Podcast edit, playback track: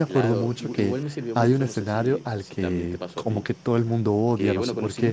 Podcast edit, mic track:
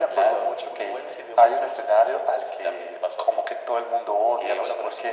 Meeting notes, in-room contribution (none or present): none